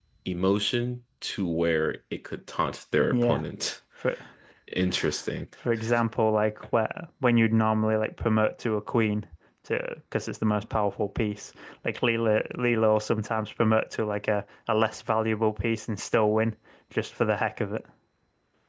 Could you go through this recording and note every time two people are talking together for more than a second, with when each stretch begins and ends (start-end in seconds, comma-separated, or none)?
none